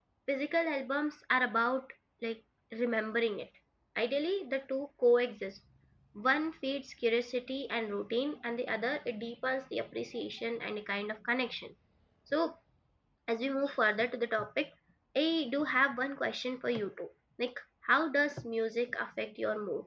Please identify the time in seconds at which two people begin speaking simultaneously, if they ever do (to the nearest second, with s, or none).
none